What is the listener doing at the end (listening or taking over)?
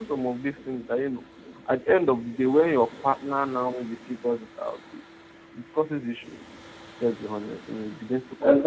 taking over